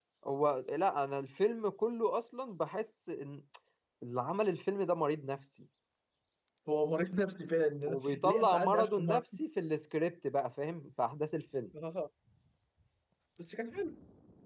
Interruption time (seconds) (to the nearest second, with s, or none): 8 s